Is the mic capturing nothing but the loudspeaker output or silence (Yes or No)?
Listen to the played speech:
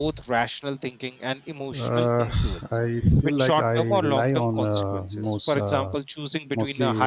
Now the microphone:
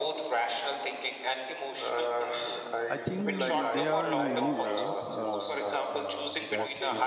No